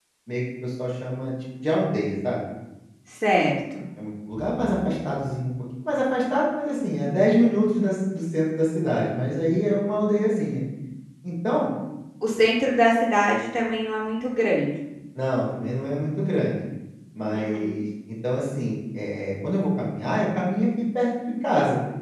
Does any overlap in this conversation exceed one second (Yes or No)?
No